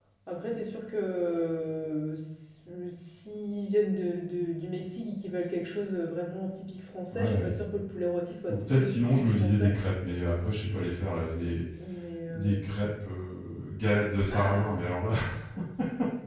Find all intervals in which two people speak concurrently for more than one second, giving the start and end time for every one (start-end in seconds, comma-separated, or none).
8.5-9.8